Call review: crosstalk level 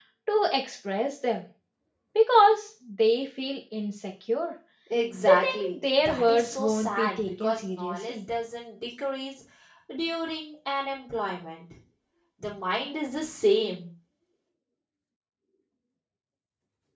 present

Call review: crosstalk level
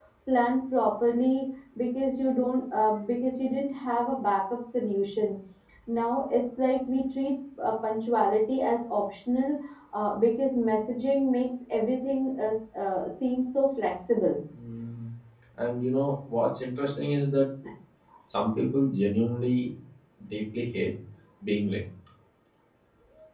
none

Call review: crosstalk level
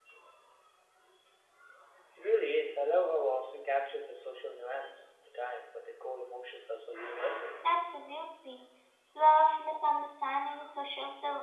none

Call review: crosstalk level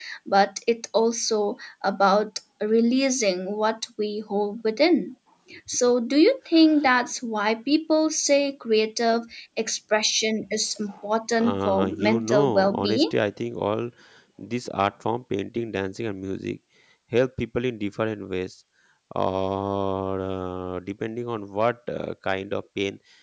present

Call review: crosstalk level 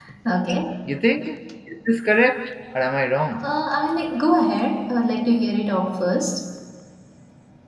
none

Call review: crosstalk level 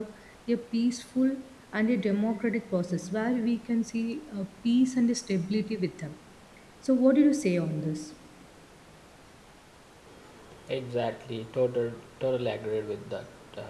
none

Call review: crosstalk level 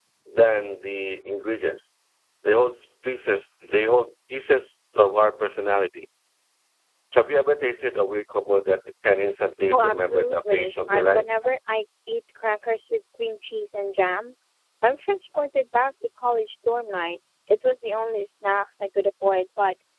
present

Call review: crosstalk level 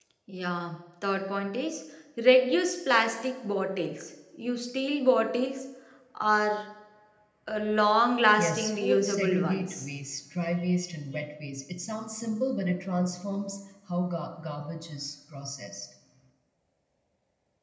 present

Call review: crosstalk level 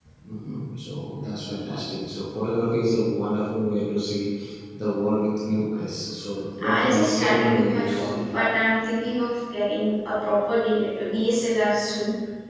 present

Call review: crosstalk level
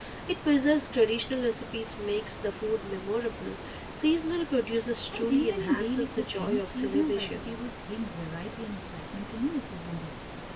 present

